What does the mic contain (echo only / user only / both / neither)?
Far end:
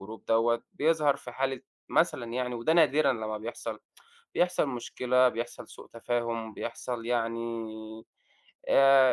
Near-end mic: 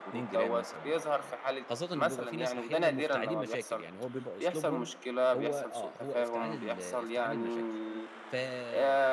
both